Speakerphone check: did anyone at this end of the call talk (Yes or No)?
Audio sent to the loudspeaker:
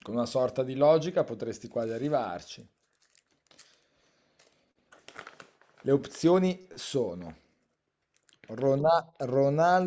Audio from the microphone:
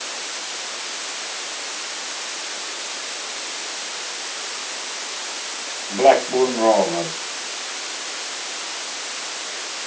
Yes